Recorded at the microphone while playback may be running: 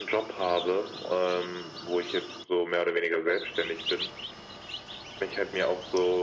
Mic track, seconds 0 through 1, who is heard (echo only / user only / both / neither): echo only